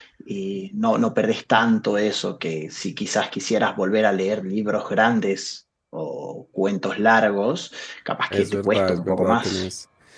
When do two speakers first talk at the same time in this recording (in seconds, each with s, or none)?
8.3 s